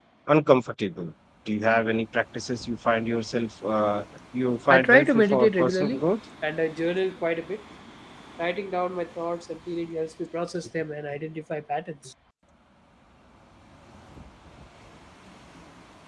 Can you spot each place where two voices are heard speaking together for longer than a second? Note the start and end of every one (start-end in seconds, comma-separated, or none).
4.7-6.0